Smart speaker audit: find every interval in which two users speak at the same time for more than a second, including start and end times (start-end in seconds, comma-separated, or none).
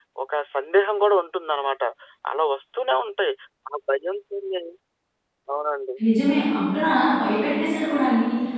none